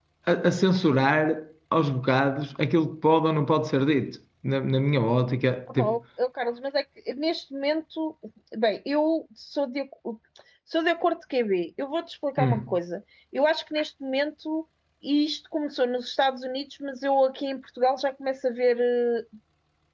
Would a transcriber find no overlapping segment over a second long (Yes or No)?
Yes